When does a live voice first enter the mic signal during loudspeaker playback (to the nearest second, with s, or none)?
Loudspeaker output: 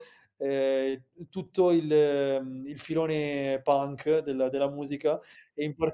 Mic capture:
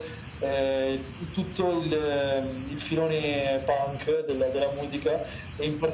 none